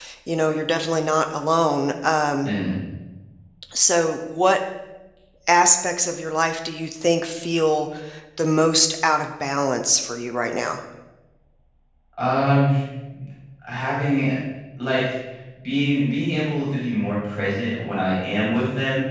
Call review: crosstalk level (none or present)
none